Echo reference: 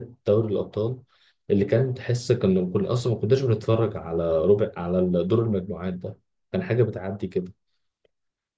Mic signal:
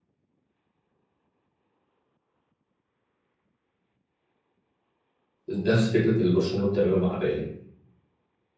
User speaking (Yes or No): Yes